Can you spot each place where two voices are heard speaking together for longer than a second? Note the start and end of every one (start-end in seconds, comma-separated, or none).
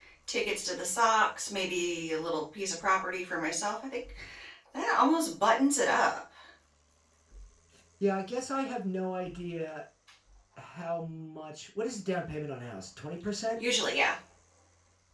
none